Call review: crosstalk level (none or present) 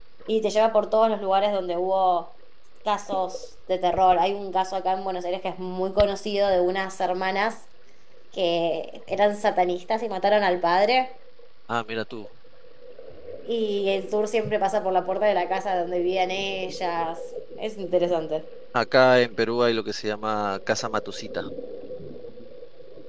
none